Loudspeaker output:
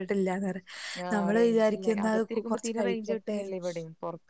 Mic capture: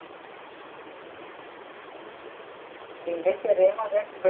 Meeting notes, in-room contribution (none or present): present